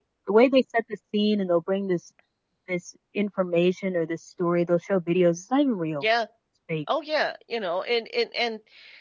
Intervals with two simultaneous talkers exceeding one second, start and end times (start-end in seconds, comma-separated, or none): none